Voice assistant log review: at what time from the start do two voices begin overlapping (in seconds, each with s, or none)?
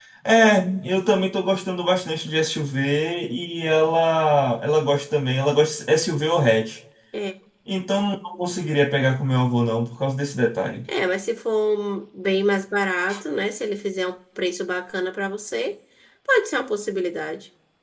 none